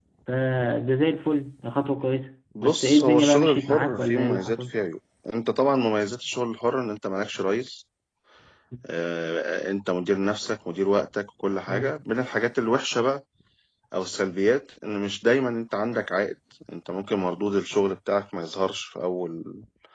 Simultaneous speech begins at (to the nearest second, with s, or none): 3 s